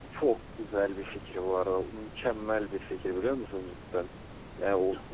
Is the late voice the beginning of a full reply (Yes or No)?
No